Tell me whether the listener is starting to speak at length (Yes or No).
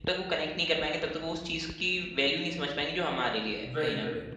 Yes